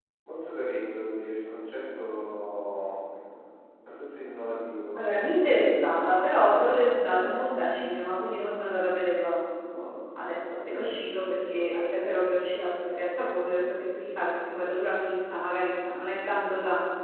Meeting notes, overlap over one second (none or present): none